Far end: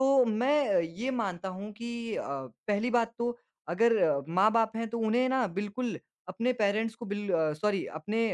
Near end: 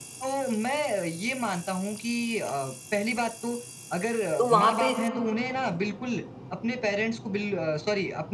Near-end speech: present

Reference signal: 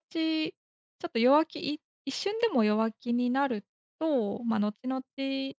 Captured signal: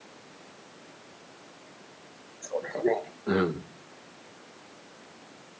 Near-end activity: present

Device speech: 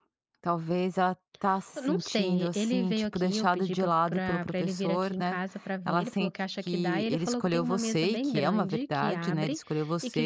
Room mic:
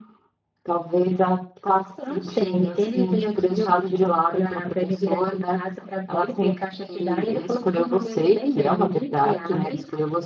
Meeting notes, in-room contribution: none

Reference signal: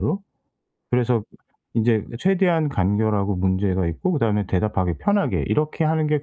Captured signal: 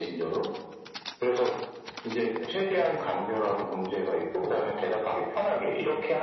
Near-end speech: none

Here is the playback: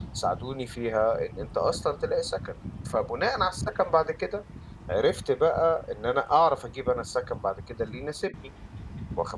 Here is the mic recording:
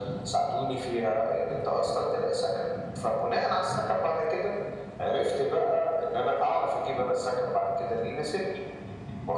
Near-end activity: none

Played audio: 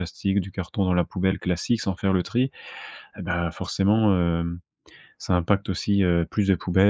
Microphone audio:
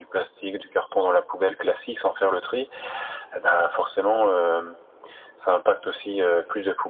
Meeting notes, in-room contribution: none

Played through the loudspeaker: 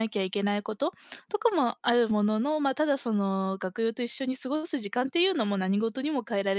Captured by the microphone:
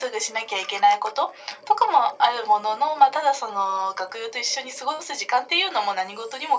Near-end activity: none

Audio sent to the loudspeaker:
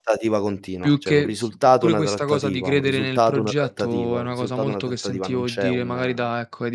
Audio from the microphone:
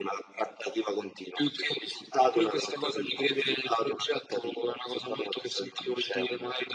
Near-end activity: none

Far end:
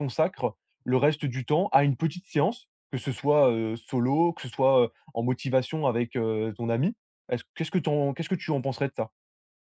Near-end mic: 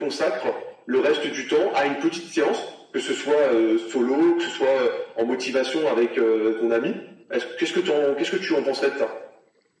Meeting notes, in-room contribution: none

